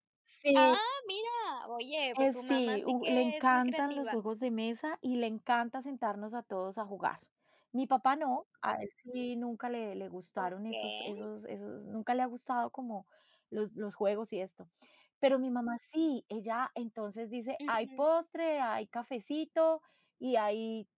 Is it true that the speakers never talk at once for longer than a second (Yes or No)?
No